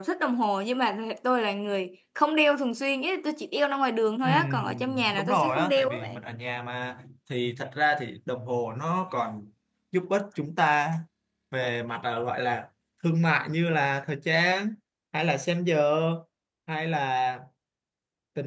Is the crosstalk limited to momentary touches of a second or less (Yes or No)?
No